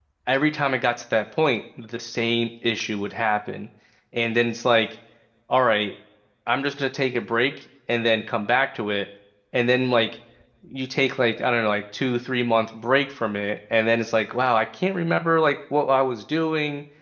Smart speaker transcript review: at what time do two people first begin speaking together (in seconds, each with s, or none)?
none